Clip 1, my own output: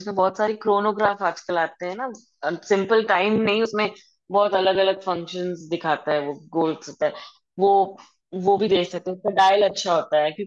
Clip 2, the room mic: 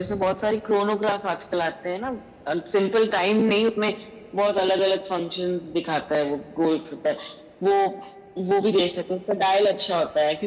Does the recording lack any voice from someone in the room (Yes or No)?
Yes